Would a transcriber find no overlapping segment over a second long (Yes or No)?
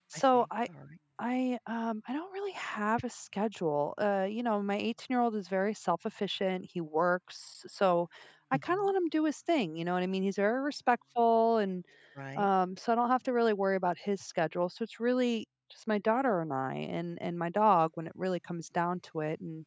Yes